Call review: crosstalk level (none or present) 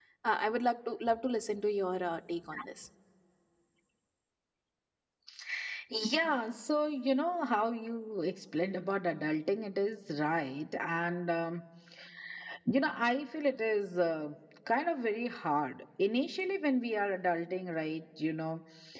none